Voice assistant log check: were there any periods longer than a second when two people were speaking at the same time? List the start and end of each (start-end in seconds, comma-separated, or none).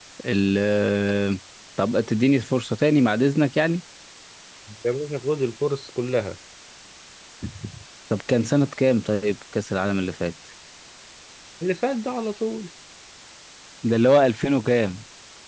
none